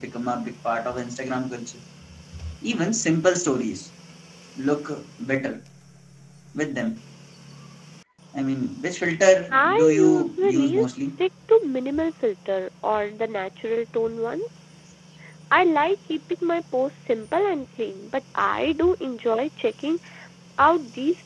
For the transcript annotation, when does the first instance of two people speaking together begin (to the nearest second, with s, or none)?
10 s